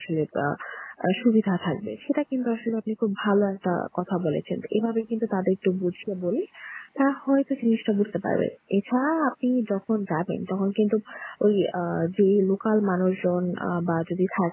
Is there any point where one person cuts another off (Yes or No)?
No